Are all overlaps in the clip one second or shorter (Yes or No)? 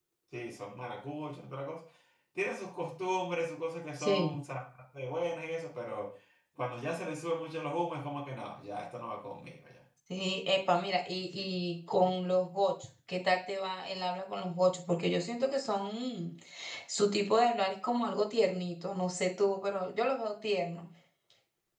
Yes